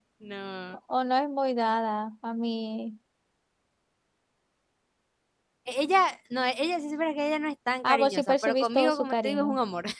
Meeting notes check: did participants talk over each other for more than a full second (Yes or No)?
Yes